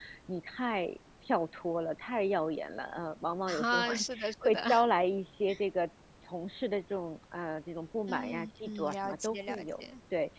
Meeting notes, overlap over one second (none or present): present